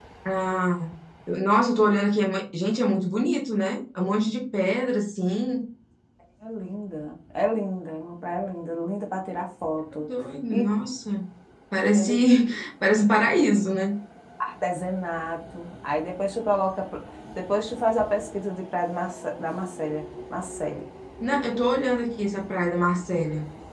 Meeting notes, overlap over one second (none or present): none